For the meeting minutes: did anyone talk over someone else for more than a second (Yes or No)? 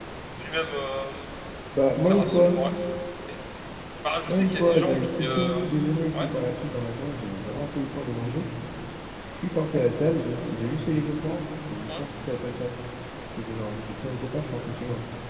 Yes